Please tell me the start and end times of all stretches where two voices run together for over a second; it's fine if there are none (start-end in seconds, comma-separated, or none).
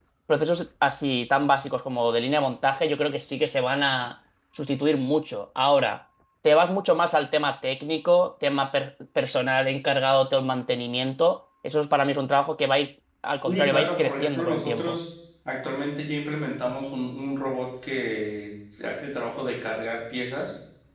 13.4-15.0